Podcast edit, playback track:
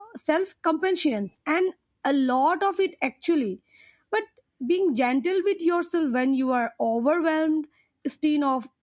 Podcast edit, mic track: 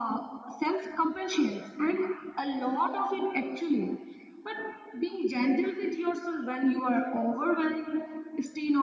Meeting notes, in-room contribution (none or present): none